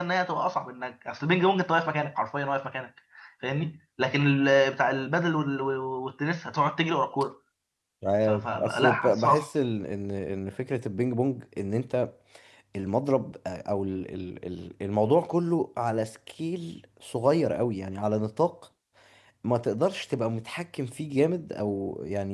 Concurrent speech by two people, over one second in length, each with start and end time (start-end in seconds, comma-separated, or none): 8.3-9.5